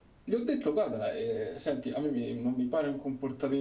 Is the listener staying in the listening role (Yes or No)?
Yes